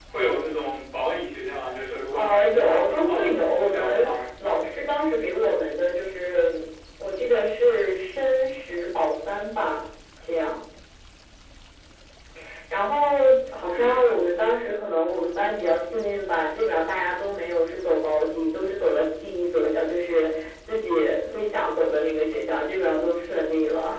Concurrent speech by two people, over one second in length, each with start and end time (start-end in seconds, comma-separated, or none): 2.1-4.2